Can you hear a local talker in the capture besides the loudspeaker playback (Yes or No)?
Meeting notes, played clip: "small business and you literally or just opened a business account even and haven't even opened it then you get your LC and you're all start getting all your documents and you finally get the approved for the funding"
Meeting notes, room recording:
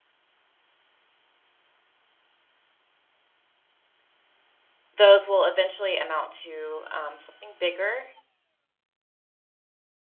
Yes